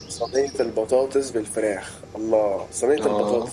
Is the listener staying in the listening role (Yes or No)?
Yes